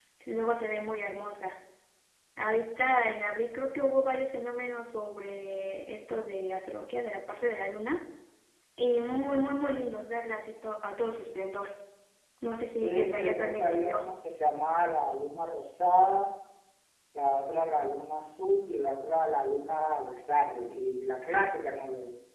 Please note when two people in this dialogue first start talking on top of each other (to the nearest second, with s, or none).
13 s